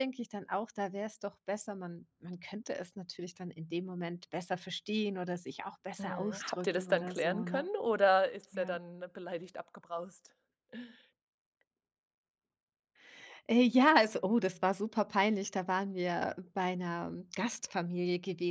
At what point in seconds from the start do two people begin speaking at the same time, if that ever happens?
6 s

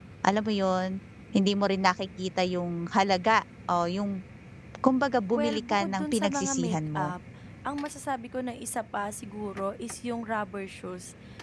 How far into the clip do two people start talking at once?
5 s

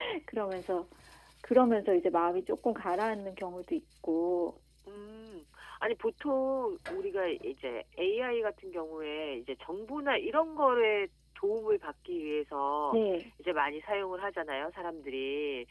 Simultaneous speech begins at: none

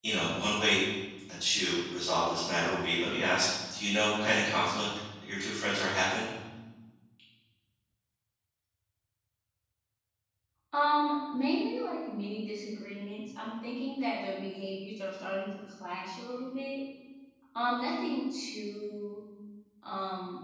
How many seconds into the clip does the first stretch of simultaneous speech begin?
none

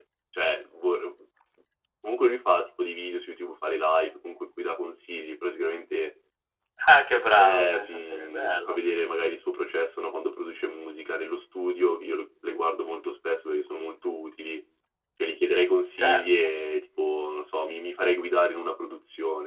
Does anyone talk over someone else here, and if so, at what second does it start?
7 s

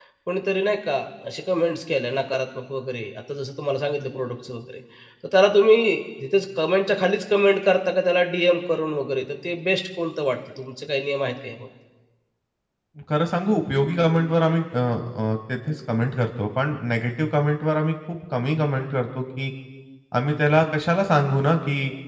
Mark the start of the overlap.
none

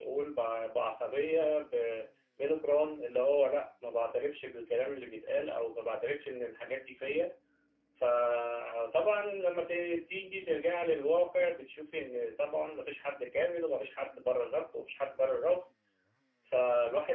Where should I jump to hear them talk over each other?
none

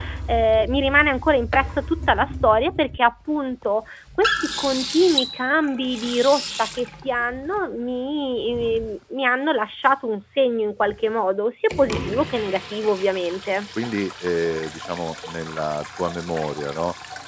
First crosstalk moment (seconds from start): none

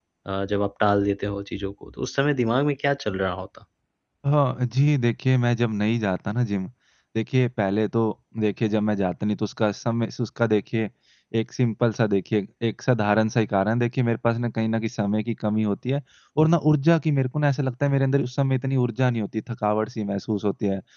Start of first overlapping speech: none

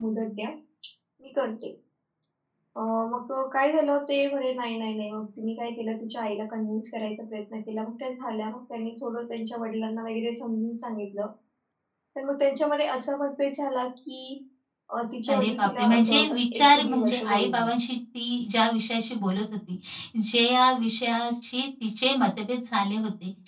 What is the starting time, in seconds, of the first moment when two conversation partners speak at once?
15 s

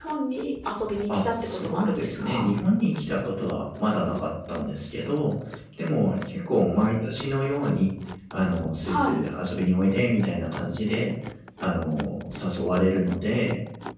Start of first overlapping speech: 1 s

